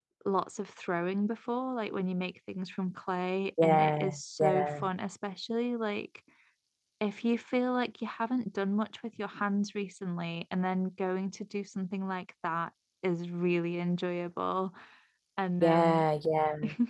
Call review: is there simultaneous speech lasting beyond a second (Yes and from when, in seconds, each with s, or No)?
Yes, from 3.6 s